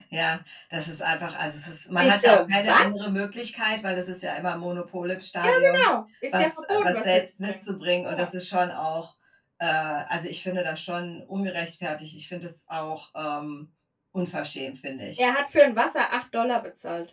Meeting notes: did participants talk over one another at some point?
Yes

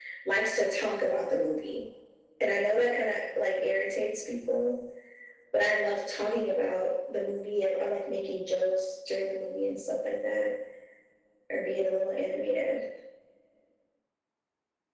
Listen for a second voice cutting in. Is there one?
No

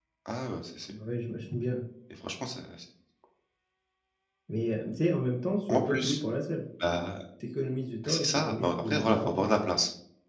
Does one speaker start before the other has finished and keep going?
Yes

